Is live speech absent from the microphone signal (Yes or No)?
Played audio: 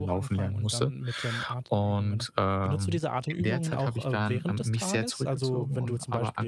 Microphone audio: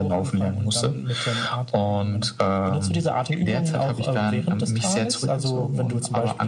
Yes